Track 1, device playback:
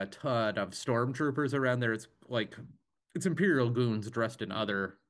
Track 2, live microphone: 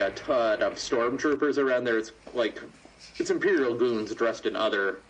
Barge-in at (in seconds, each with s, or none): none